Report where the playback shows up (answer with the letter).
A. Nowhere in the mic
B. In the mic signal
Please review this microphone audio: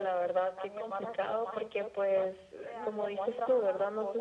B